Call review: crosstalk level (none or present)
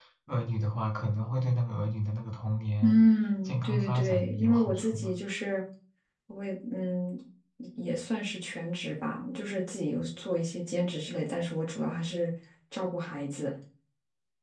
present